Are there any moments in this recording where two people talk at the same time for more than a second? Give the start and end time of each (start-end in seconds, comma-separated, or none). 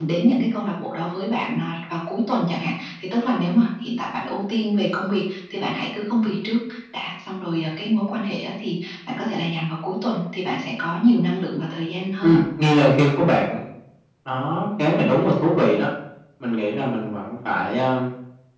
none